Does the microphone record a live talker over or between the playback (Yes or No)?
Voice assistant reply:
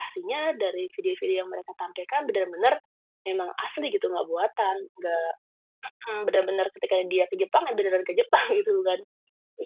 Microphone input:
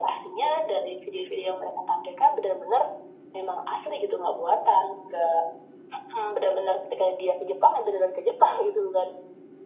No